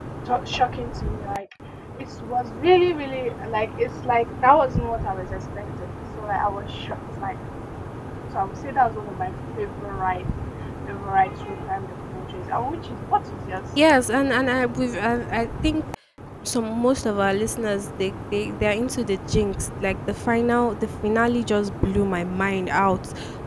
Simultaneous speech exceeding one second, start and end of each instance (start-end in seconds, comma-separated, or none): none